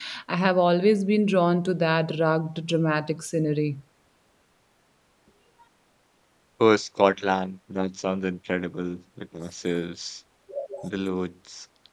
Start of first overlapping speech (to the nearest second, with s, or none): none